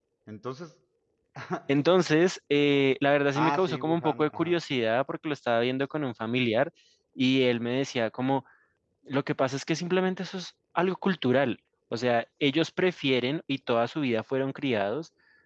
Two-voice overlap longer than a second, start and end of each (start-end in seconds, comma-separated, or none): 3.4-4.6